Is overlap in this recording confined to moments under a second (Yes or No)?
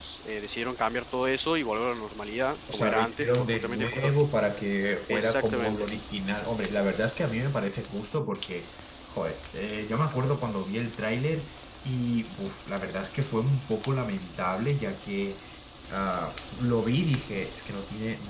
No